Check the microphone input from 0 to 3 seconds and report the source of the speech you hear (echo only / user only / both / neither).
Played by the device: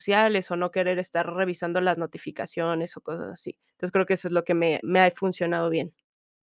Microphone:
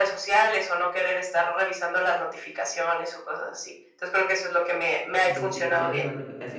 echo only